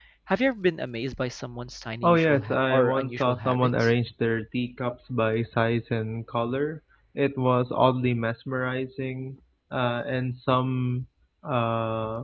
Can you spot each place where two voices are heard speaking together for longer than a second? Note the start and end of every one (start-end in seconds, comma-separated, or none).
2.0-3.9